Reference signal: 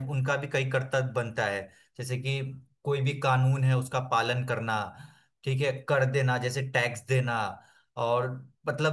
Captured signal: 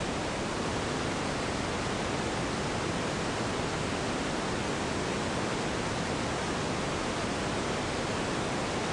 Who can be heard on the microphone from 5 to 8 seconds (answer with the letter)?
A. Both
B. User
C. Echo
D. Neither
D